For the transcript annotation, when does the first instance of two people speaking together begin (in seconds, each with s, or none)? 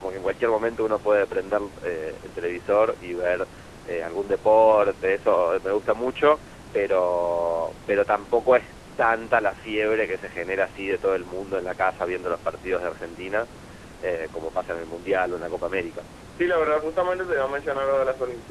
none